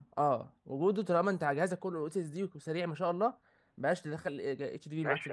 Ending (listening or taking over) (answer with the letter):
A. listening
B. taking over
B